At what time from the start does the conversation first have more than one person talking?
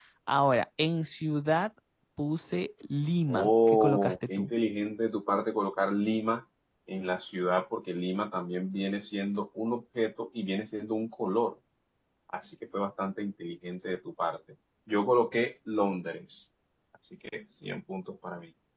3 s

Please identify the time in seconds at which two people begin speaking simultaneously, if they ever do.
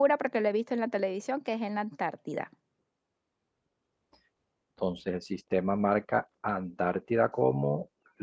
none

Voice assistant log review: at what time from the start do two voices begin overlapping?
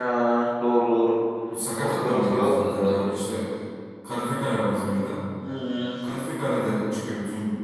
2 s

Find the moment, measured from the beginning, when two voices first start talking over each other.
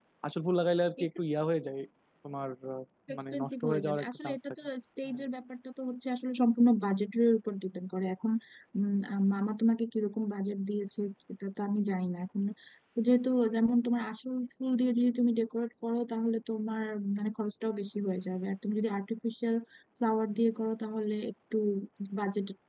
3 s

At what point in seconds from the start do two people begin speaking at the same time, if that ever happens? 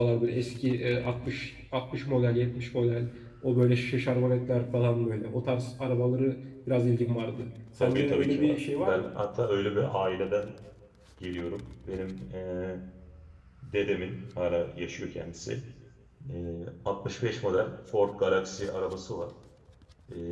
8 s

